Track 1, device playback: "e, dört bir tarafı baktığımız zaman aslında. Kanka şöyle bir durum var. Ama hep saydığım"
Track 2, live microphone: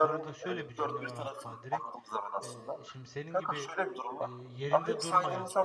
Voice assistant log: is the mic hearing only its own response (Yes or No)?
No